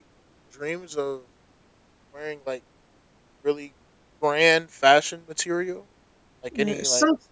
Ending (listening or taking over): taking over